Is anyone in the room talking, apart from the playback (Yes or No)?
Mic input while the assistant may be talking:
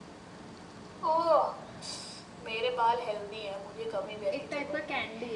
Yes